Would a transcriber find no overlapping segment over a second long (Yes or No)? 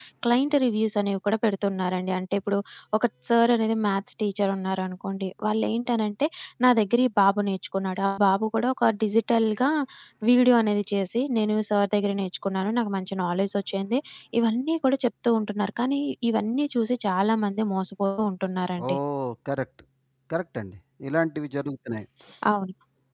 Yes